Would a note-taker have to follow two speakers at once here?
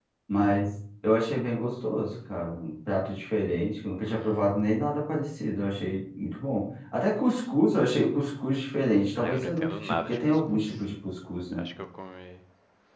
Yes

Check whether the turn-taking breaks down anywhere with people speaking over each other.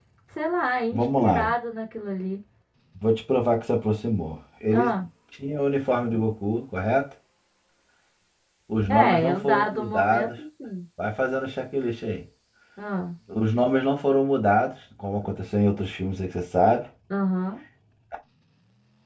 Yes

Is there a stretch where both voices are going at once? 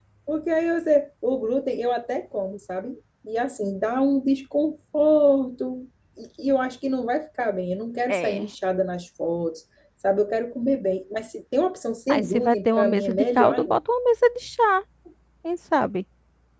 Yes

